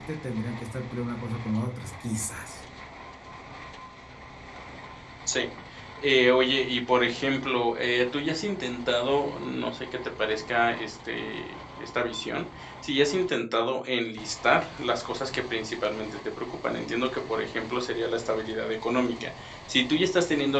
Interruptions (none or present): none